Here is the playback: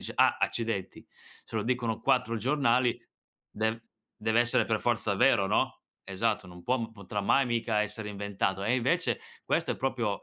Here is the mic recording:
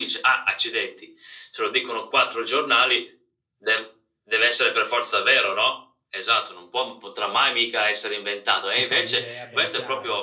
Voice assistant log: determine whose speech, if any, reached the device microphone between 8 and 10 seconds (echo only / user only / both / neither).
both